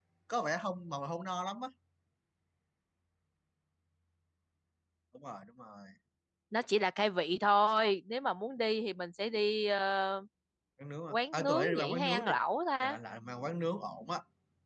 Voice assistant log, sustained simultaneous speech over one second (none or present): present